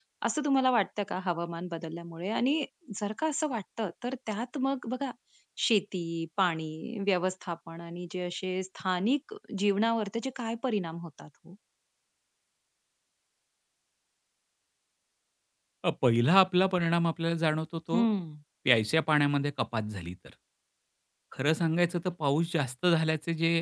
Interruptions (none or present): none